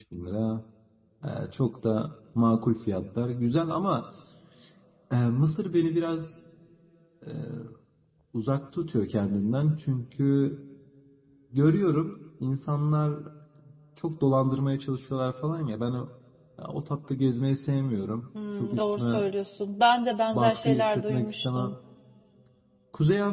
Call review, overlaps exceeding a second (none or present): present